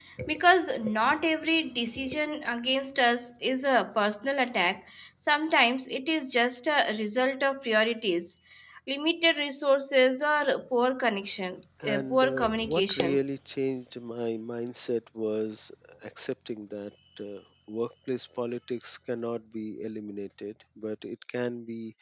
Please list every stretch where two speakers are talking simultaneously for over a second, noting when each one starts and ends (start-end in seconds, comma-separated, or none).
11.9-13.2